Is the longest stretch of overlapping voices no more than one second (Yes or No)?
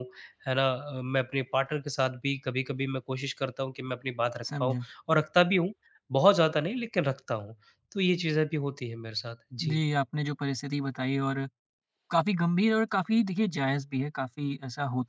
Yes